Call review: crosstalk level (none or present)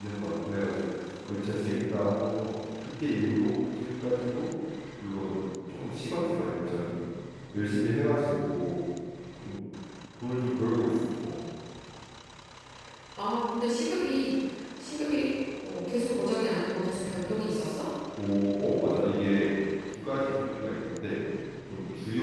none